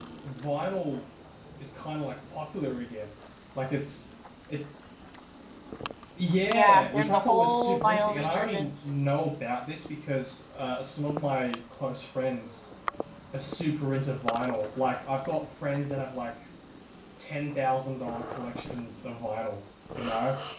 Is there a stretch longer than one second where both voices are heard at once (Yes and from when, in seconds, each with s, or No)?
Yes, from 6.5 s